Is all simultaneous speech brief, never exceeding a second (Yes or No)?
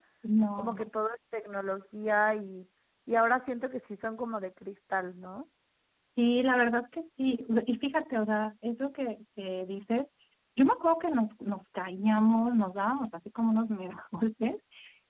Yes